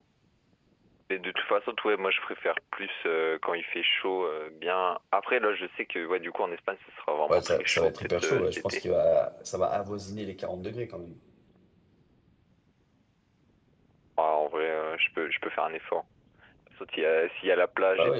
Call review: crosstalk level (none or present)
present